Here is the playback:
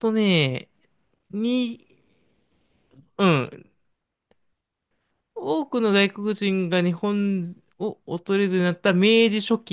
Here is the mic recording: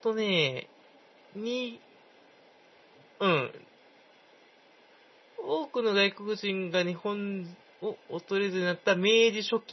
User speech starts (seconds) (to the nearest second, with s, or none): none